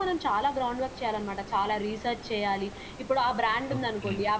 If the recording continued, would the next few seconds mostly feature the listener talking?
No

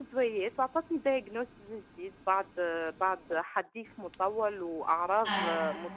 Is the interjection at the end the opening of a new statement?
No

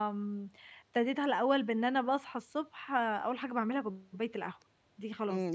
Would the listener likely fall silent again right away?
No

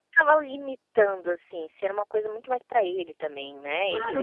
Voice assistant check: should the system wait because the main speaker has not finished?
No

